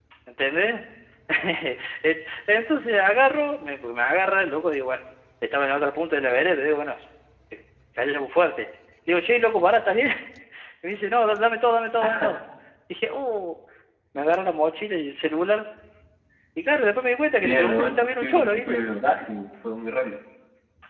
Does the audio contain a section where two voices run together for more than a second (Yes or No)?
Yes